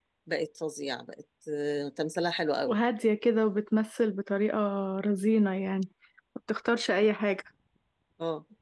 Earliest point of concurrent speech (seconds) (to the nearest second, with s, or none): none